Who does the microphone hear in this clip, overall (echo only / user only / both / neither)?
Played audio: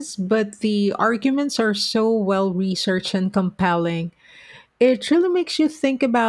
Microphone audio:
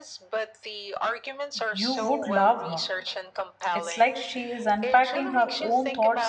both